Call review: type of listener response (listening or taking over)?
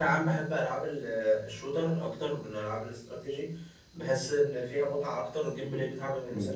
listening